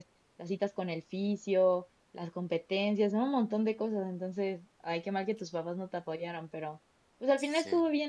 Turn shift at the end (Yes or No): No